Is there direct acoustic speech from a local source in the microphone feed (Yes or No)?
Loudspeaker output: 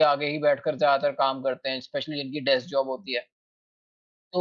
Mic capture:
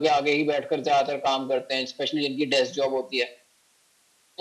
No